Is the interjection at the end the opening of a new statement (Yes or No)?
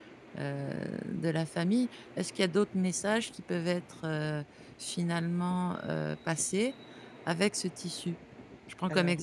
No